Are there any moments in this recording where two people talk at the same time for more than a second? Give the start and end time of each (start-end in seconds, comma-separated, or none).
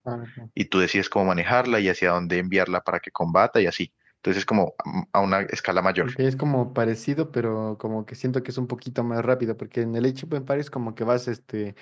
none